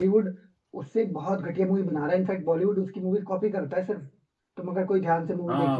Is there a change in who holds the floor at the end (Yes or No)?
Yes